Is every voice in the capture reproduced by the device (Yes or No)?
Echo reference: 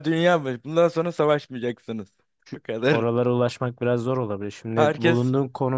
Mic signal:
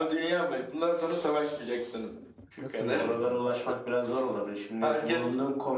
No